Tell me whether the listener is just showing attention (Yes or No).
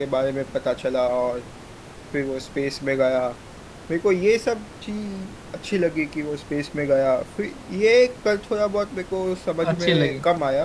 No